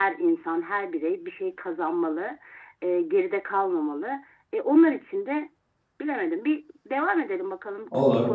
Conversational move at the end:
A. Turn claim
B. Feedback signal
A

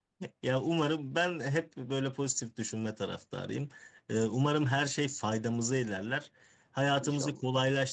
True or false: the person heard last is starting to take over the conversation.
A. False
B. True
A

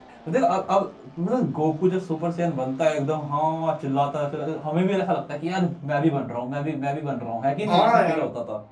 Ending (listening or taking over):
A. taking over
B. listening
A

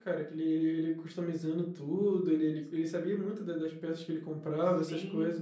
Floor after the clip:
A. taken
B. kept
A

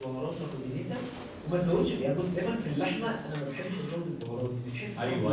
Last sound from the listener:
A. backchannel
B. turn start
B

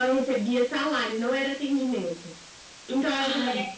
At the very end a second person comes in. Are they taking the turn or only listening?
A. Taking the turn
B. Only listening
B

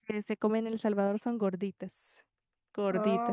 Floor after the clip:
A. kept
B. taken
B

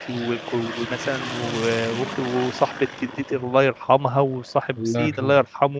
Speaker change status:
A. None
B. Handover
A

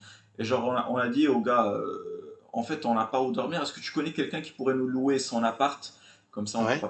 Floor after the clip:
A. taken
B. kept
B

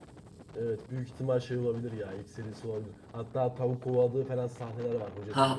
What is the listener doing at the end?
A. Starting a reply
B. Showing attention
A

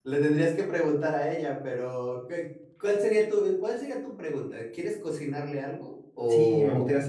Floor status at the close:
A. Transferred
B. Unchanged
A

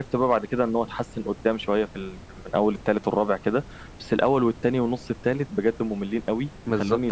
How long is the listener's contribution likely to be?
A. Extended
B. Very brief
A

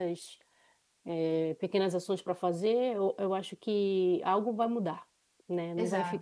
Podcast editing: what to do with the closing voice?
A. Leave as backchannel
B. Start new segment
A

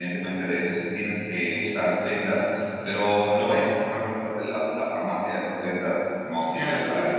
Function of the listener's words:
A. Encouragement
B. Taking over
B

